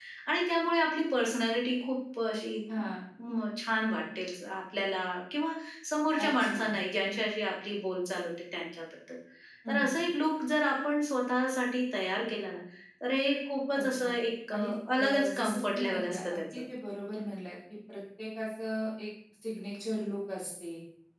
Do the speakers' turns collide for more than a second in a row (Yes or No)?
Yes